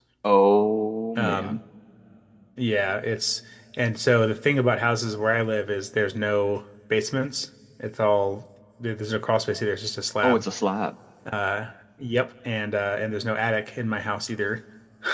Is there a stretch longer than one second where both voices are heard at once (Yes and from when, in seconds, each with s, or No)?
No